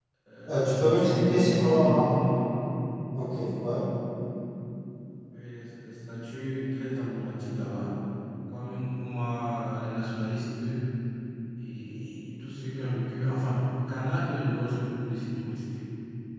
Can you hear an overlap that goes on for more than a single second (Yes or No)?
Yes